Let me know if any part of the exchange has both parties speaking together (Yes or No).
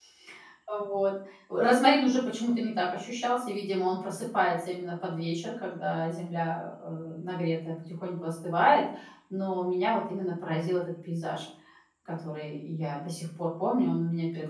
No